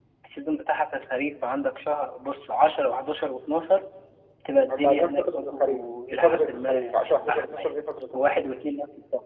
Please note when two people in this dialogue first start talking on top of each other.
4.7 s

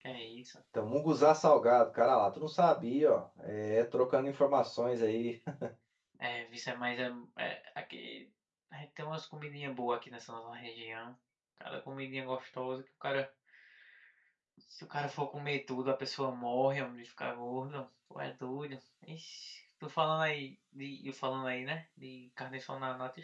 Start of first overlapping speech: none

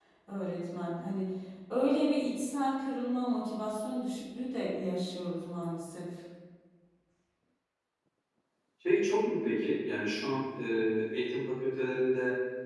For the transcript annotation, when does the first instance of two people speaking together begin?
none

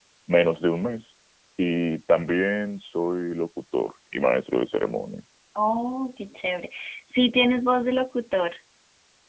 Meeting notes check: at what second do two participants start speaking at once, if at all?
none

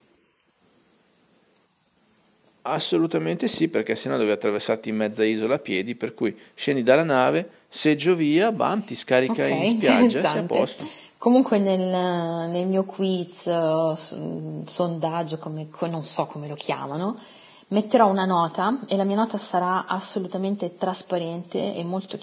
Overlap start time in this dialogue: 9.3 s

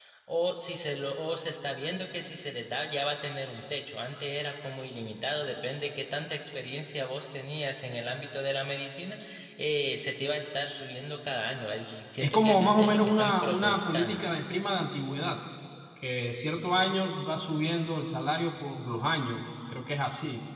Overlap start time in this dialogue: 12.2 s

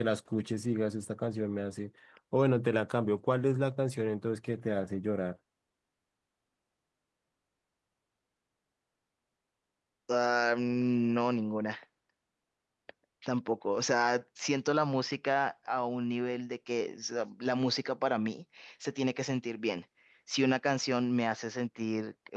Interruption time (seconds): none

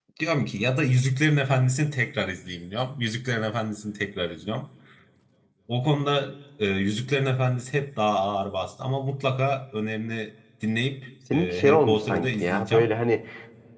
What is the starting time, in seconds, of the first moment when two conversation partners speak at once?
11.3 s

